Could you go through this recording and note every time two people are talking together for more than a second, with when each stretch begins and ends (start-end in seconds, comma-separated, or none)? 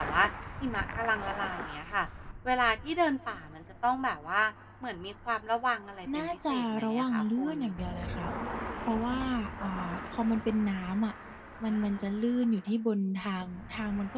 6.1-7.5